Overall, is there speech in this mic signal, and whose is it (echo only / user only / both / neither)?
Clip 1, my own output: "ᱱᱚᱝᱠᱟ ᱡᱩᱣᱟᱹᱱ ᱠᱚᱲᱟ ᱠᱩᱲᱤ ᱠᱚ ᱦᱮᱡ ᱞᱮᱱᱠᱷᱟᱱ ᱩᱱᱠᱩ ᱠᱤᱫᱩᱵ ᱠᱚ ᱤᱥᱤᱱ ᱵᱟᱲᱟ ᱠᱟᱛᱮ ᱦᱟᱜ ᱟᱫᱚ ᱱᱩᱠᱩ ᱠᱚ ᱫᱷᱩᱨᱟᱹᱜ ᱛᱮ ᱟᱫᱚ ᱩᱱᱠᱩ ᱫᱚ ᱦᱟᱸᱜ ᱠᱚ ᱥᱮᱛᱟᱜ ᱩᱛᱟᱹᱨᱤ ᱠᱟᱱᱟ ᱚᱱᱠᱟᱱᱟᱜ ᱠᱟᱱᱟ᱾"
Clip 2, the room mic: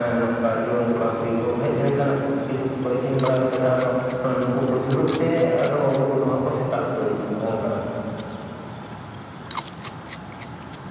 echo only